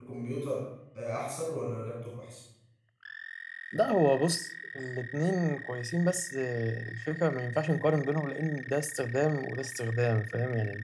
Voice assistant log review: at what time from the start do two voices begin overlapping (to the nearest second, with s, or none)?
none